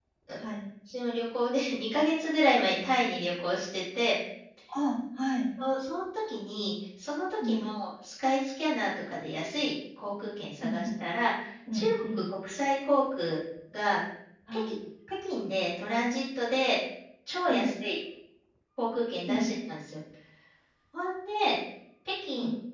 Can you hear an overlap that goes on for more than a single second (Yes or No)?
No